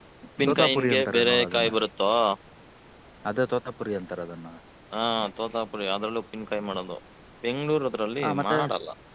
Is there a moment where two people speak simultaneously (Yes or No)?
Yes